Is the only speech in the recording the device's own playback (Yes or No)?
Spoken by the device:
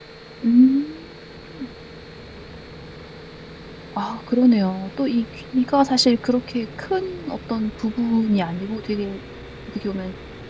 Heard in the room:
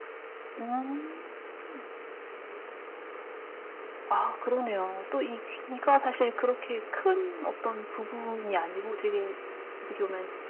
Yes